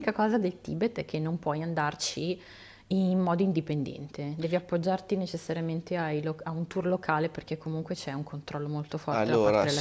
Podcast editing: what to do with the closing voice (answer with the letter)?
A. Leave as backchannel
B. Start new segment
B